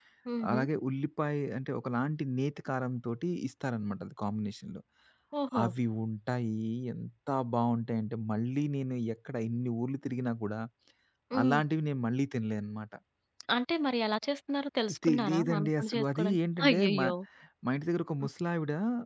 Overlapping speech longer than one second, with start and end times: 15.1-17.1

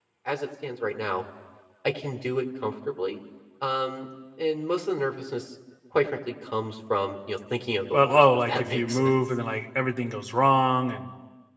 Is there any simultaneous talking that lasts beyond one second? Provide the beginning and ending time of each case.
7.9-9.2

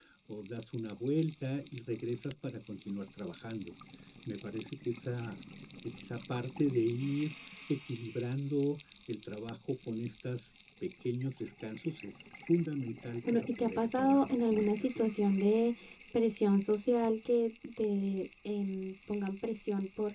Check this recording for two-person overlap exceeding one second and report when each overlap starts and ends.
13.3-15.0

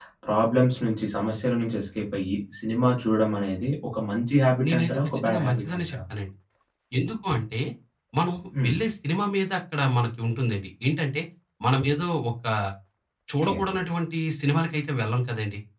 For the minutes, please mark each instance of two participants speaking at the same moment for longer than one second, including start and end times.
4.7-6.0

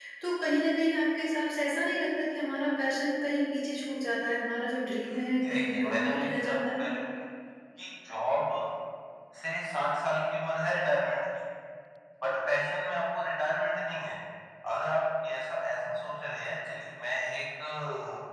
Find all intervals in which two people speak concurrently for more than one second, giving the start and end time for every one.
5.5-6.8

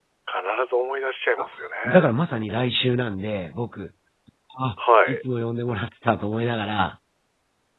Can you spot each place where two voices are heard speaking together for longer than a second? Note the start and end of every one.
none

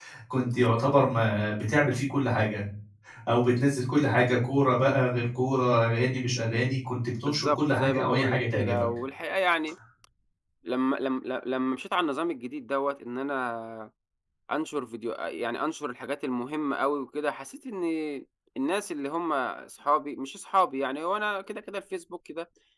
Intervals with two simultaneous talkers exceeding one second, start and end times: 7.2-8.8

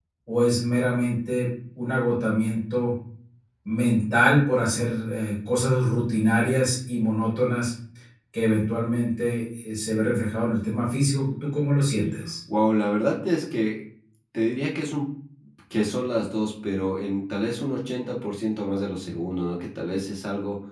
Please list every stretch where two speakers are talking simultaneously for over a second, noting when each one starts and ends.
none

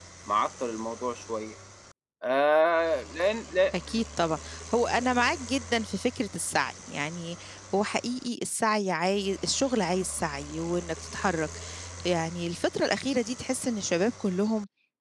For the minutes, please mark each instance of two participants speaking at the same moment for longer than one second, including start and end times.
none

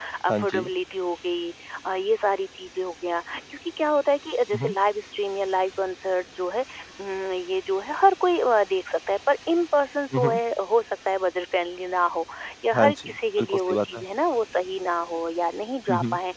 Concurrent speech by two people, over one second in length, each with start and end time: 12.7-14.0

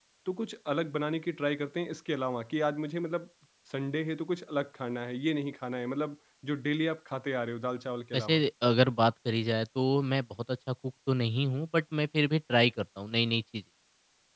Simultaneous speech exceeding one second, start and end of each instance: none

